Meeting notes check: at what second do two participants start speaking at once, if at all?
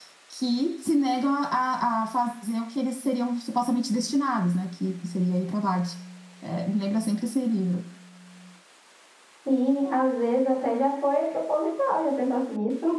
none

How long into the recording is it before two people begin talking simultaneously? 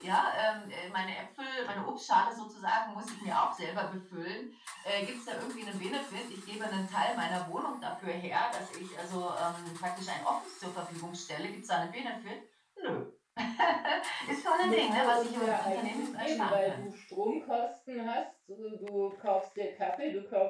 14.6 s

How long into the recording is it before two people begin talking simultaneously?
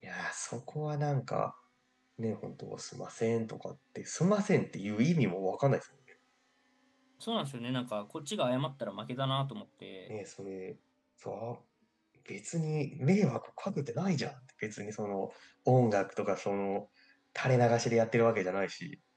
none

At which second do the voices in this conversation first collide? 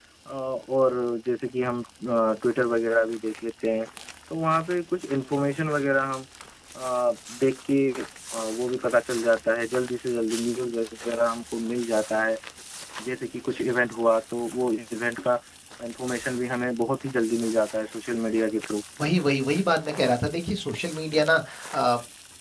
none

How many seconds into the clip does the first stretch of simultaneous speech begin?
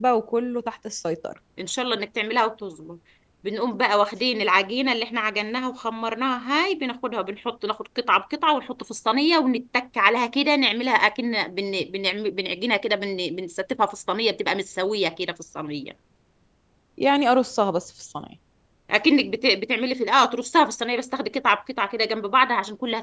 none

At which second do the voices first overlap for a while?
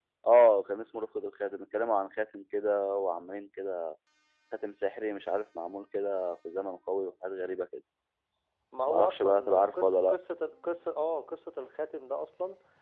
8.9 s

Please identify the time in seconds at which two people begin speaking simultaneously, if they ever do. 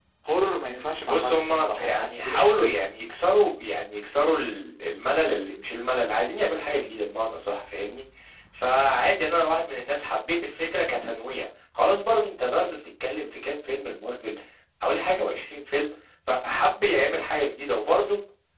1.1 s

